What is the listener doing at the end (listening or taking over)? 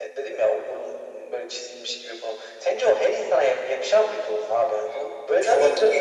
taking over